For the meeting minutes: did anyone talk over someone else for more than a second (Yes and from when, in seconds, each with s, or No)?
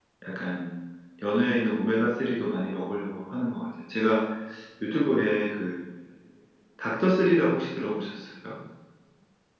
No